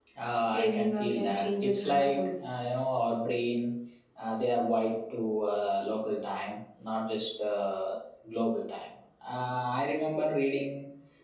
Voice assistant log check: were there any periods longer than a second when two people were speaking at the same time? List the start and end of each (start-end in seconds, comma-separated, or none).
0.5-2.3